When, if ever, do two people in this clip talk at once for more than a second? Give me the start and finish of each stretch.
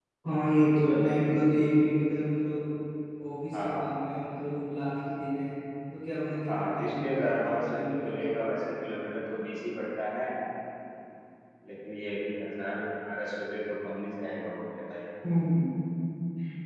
6.5-8.6

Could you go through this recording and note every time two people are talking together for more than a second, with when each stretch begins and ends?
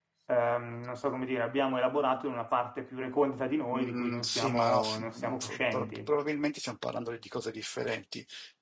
3.7-6.2

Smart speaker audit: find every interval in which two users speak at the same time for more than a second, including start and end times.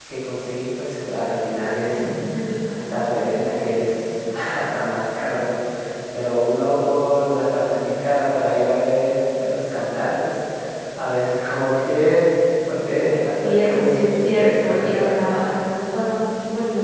13.4-15.2

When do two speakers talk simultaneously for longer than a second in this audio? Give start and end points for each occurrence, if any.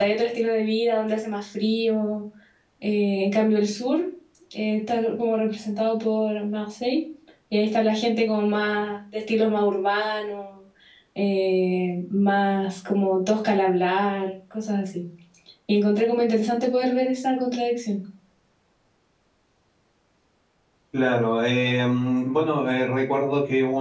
none

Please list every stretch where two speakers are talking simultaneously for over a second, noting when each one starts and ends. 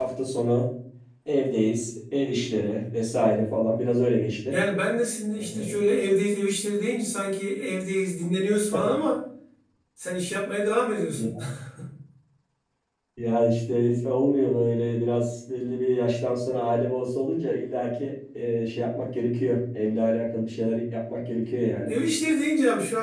none

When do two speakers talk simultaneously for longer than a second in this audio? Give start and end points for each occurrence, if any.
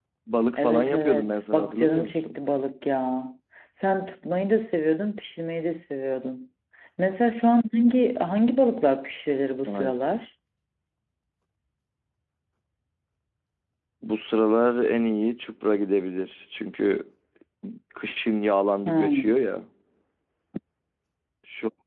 0.6-2.4

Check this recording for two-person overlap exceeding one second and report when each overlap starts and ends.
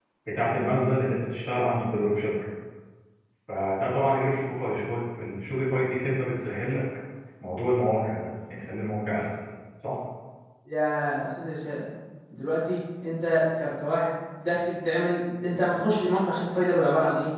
none

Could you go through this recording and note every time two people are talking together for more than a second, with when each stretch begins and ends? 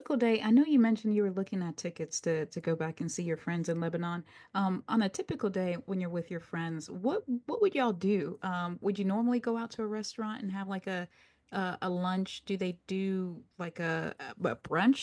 none

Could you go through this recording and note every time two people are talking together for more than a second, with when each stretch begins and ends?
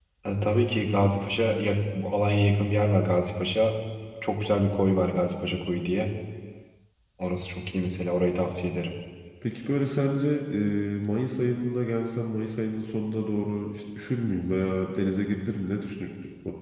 none

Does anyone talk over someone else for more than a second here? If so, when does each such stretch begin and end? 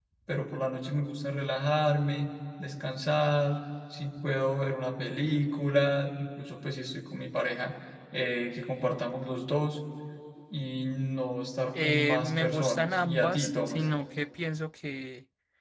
11.7-13.9

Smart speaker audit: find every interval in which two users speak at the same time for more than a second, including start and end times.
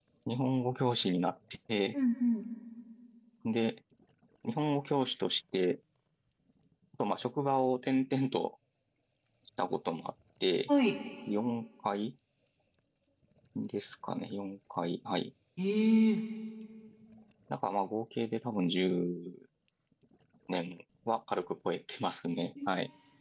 none

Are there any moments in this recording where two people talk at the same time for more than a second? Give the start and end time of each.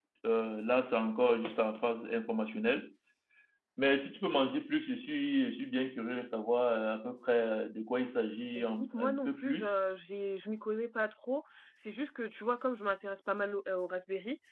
8.4-9.7

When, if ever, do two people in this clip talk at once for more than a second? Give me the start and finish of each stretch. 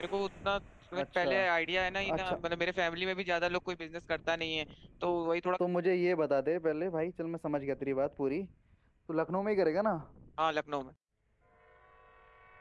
none

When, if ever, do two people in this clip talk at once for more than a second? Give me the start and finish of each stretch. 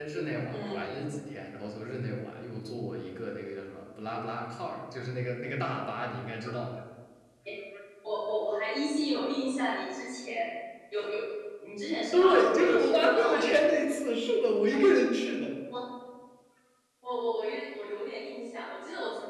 12.1-13.4

